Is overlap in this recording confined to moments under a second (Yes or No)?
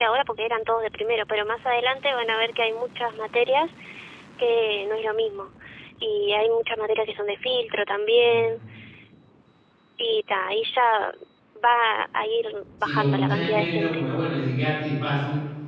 No